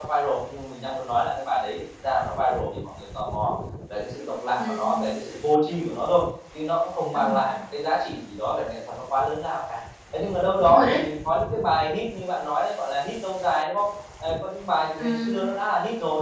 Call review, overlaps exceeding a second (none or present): none